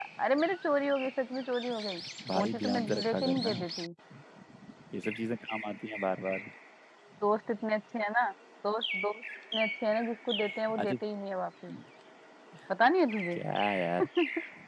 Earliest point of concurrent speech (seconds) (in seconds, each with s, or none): 2.4 s